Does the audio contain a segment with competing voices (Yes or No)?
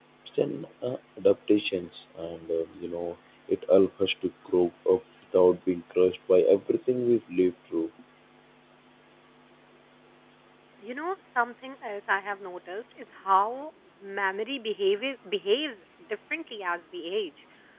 No